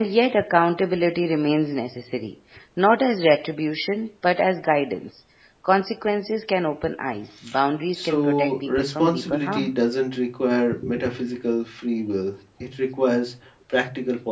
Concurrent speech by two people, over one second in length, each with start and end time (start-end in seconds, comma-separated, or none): 7.9-9.7